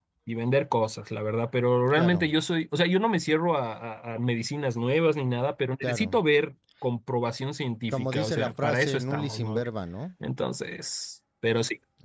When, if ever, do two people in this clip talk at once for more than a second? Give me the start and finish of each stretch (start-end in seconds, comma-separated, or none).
7.9-9.6